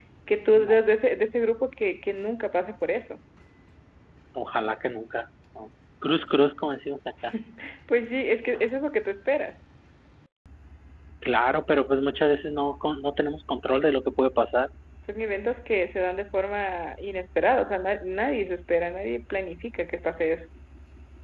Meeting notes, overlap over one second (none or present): none